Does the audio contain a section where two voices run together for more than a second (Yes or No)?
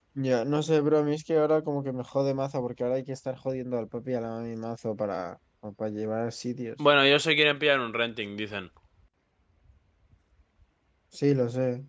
No